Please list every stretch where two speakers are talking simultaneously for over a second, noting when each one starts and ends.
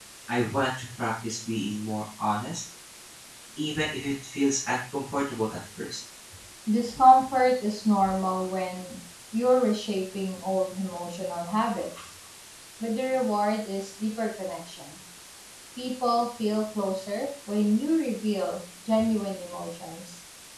none

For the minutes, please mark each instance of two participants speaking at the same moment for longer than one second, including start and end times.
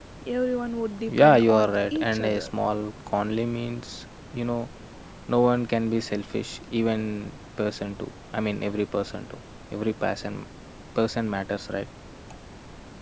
1.1-2.5

